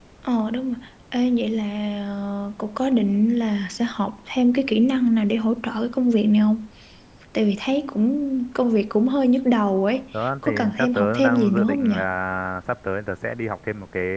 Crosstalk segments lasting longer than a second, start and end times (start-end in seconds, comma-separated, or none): 10.4-11.9